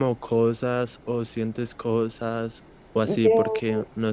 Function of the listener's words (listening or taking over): listening